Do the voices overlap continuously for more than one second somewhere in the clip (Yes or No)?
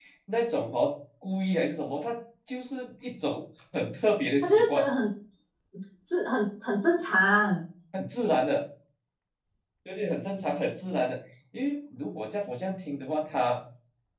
No